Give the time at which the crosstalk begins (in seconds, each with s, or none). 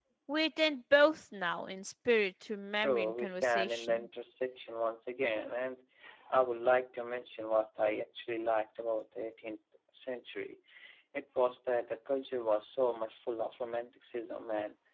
2.7 s